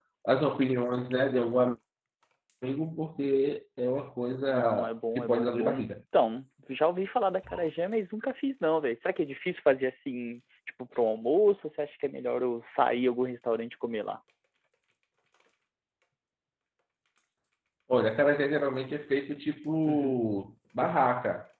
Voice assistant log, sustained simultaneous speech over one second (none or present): present